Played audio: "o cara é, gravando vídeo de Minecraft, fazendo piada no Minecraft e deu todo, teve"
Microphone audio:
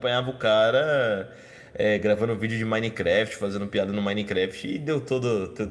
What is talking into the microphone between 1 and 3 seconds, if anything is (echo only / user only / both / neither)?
echo only